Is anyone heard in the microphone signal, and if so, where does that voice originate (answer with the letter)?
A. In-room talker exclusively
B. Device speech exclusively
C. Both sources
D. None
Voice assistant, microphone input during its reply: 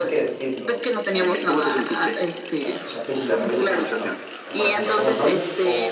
C